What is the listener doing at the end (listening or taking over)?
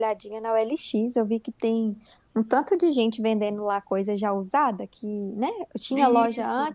listening